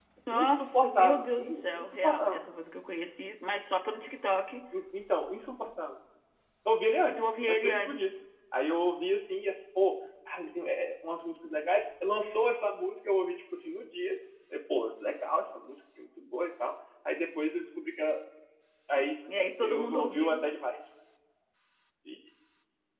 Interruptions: present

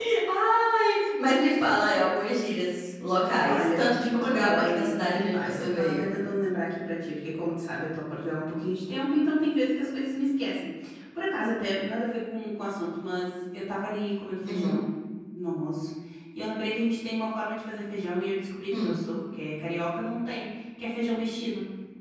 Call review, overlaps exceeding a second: present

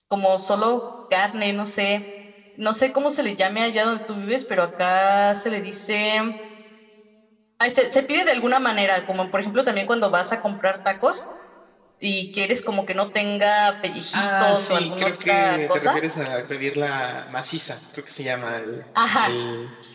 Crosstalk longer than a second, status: present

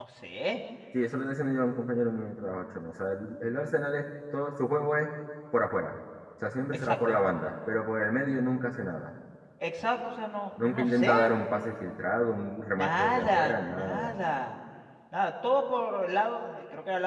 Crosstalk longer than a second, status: present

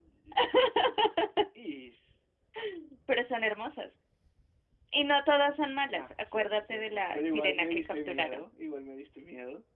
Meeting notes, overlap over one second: present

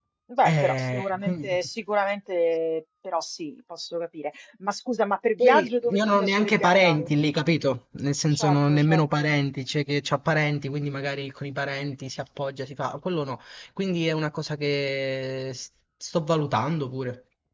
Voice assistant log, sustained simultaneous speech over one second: present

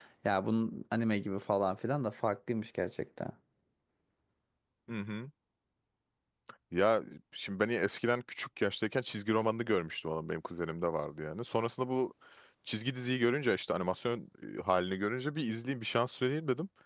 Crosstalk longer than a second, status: none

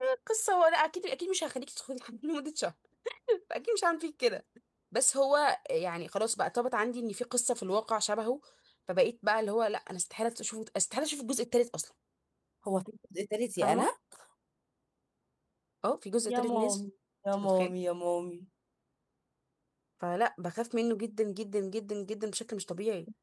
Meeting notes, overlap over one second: none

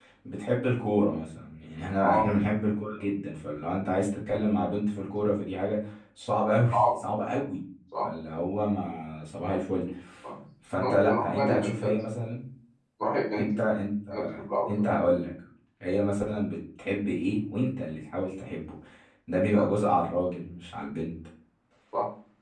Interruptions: present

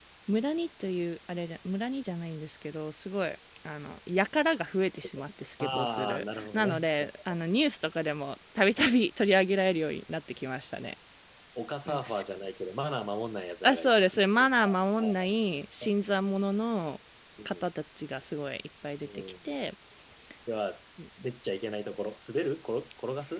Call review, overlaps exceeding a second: present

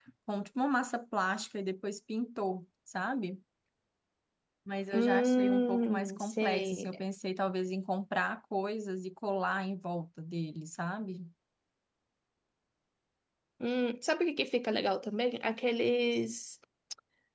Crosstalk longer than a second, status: present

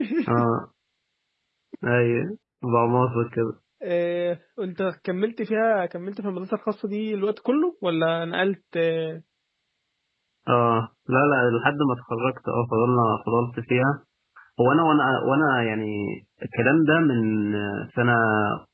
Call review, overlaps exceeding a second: none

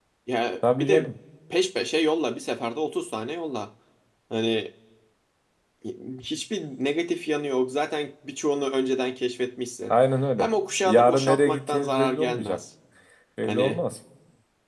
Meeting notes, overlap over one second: present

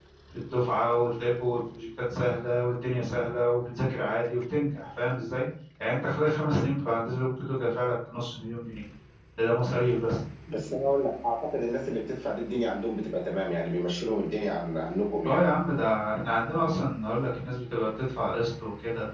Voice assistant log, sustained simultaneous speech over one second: none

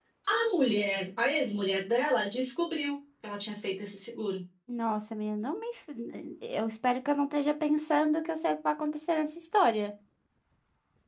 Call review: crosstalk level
none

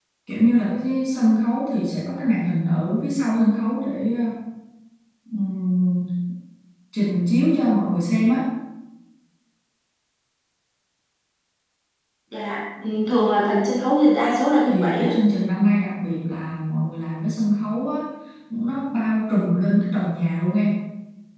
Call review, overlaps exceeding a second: none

